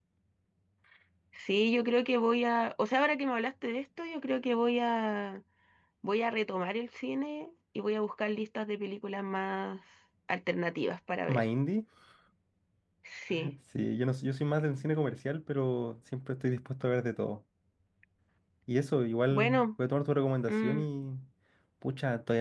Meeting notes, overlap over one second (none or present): none